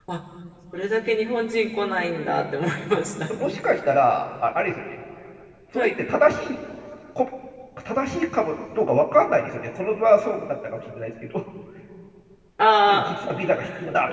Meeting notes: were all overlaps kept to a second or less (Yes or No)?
Yes